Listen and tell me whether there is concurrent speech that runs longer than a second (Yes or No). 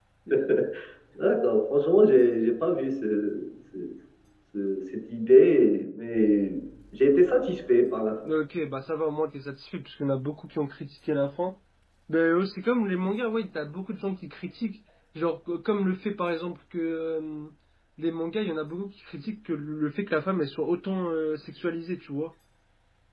No